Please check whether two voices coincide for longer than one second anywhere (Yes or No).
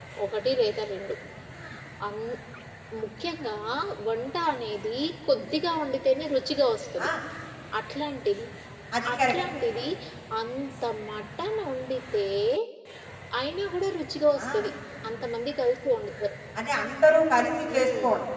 No